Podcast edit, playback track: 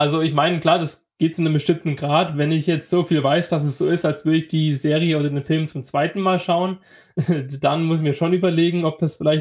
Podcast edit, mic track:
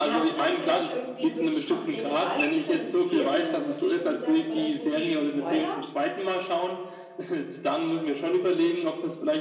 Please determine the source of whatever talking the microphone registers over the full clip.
both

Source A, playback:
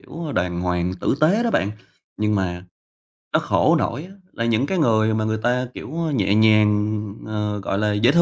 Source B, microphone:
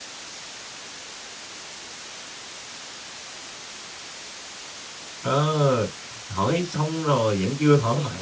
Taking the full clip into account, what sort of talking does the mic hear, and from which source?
user only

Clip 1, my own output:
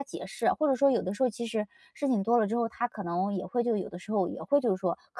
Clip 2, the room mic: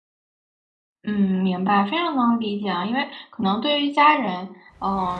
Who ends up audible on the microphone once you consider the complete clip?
user only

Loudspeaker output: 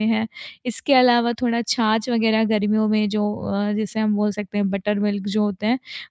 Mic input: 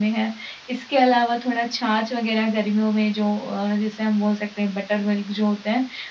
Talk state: echo only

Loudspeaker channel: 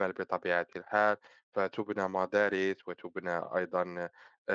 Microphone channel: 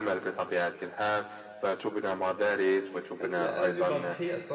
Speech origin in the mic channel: both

